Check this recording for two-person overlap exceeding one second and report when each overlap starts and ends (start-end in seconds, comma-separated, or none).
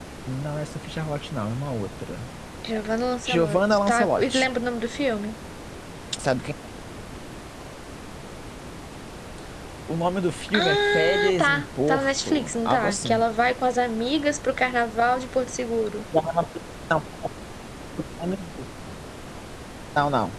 3.3-4.5, 10.5-13.2